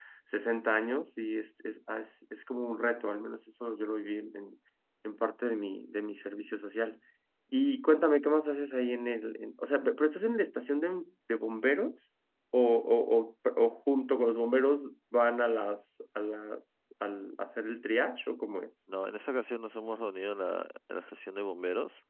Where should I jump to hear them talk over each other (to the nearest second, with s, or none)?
none